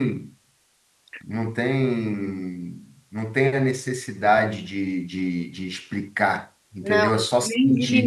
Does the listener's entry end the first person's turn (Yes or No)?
Yes